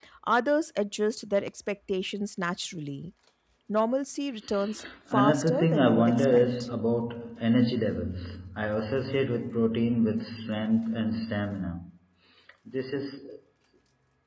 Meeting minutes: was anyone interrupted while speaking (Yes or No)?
Yes